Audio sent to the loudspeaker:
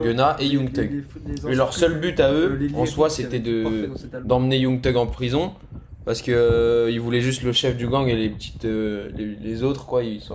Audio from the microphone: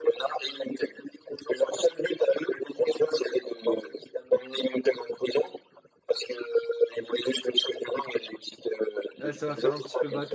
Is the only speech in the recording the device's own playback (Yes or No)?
No